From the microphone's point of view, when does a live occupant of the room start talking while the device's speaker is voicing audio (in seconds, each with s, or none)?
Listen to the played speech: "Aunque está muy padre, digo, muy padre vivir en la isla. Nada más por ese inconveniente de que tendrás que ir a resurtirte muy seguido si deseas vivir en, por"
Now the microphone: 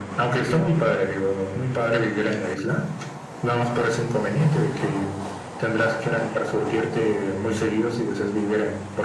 none